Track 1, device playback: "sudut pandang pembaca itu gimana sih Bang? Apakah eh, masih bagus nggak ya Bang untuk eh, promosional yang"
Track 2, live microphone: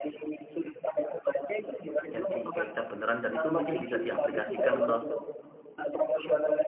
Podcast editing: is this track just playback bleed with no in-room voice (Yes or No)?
No